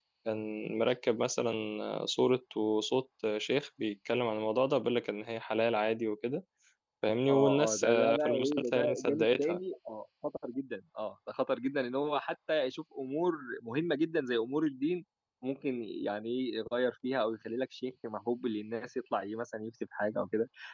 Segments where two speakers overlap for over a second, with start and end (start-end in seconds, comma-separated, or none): 7.3-9.6